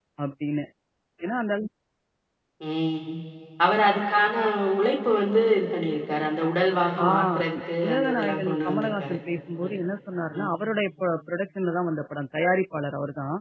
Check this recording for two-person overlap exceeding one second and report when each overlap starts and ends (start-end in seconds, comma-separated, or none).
7.8-9.2